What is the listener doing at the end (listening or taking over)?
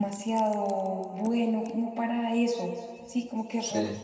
listening